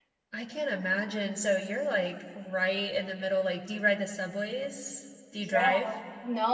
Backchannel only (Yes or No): No